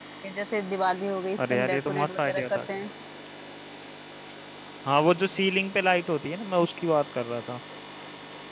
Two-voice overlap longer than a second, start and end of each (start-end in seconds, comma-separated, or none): 1.5-2.8